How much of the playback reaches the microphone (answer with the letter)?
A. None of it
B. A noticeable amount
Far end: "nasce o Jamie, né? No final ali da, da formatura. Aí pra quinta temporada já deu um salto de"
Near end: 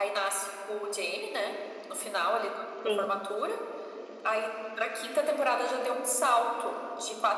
B